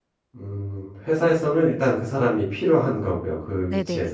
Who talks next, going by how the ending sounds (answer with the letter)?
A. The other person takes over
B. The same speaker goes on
A